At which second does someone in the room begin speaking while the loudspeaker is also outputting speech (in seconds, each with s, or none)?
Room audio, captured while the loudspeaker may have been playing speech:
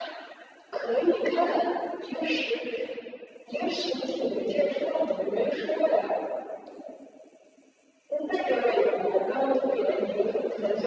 none